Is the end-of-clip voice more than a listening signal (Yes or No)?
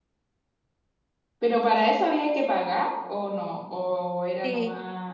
Yes